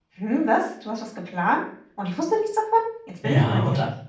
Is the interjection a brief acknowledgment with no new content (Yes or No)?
No